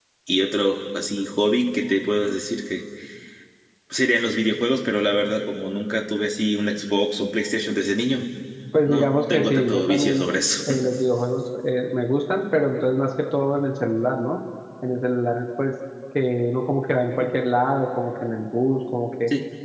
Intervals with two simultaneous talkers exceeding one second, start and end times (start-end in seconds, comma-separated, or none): 8.8-10.2